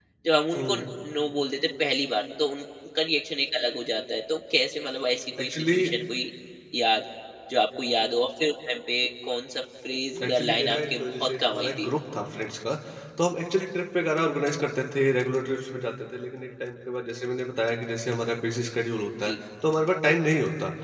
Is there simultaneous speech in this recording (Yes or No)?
Yes